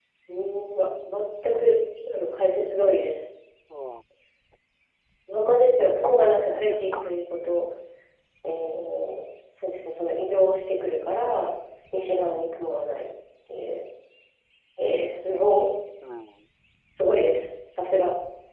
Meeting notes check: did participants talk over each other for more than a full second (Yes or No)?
Yes